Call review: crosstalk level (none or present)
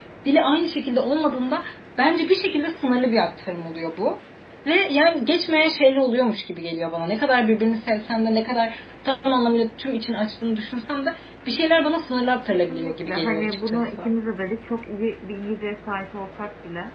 present